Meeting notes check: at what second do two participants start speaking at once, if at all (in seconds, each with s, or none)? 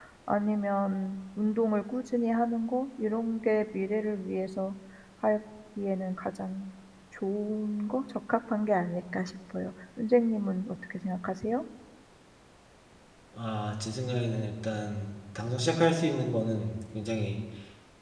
none